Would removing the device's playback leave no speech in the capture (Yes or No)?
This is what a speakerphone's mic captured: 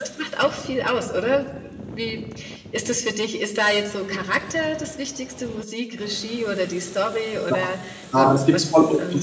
No